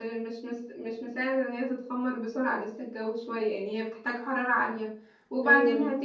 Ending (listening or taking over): listening